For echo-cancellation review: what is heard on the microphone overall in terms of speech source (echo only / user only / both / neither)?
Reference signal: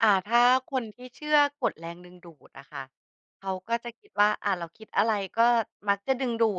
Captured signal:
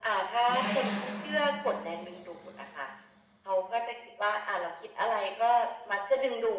both